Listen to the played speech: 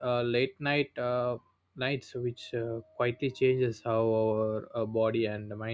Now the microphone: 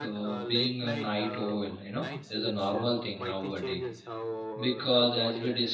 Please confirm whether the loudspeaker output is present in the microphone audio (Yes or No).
Yes